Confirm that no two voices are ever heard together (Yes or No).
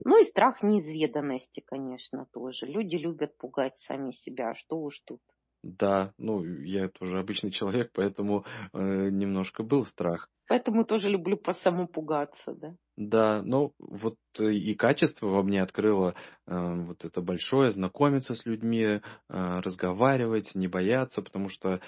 Yes